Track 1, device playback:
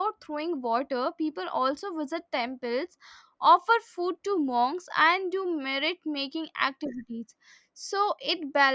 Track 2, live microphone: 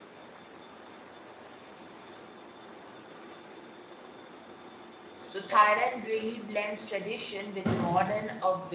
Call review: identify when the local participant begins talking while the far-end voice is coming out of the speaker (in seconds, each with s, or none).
5.3 s